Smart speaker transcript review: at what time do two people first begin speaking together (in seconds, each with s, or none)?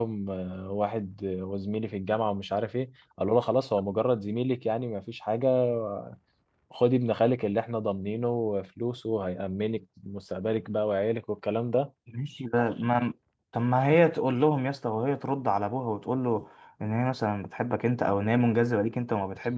none